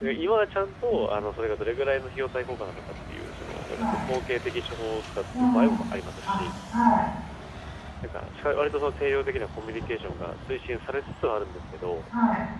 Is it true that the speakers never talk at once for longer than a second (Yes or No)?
Yes